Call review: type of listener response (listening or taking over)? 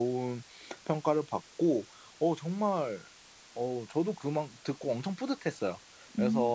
listening